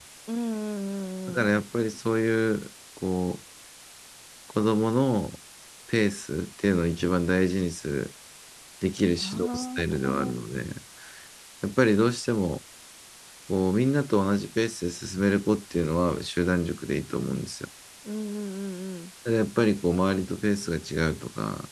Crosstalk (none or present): present